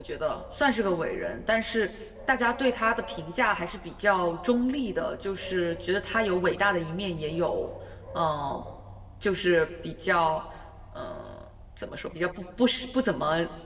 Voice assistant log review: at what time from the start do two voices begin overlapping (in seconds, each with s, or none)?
none